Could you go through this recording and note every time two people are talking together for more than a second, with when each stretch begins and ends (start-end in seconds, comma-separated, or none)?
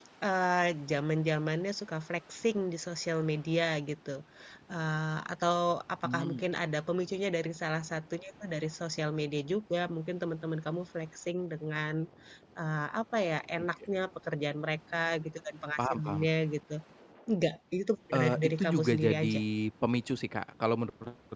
18.1-19.3